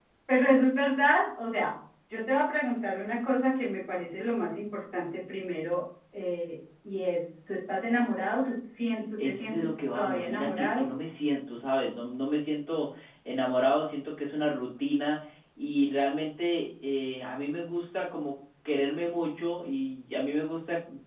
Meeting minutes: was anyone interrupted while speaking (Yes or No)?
Yes